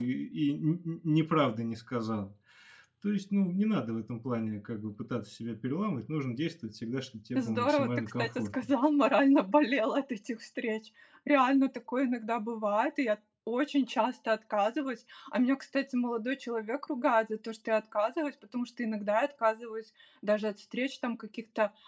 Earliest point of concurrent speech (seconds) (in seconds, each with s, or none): 7.4 s